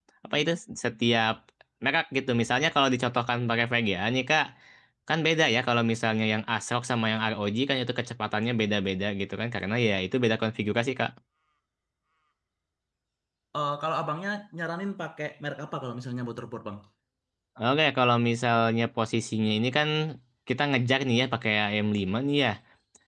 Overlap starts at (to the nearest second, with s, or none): none